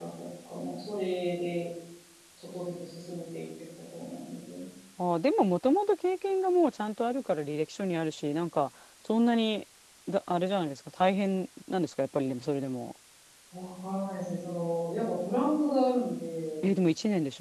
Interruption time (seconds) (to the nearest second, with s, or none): none